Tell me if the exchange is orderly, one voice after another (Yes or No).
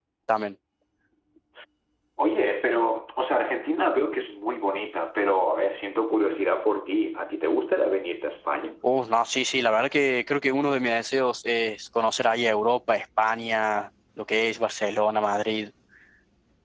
Yes